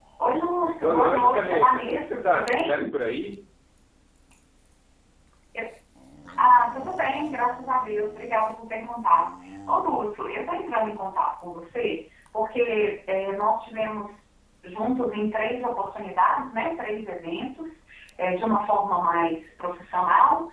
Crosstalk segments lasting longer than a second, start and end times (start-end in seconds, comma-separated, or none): 0.8-2.8